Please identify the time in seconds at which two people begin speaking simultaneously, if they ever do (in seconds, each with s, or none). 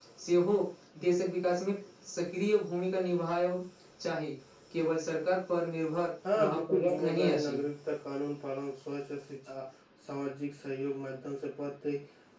6.2 s